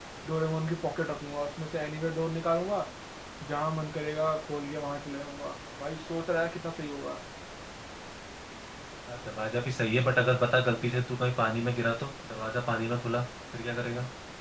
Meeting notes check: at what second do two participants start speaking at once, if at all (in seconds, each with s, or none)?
none